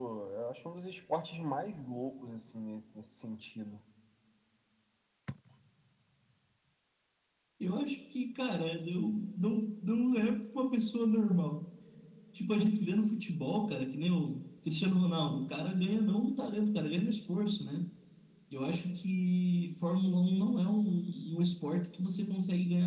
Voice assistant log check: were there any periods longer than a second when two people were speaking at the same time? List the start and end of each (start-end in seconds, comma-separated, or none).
none